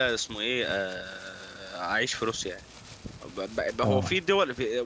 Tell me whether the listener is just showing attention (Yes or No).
Yes